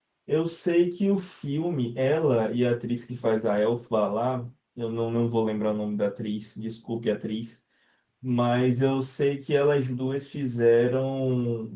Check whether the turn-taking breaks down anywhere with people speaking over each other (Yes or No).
No